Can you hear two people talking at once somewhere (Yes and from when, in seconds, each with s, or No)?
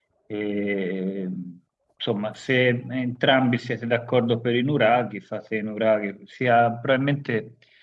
No